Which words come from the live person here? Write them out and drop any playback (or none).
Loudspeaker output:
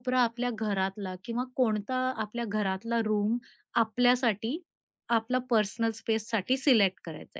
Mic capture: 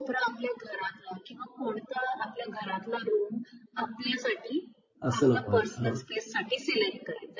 असं नको व्हायला. हां.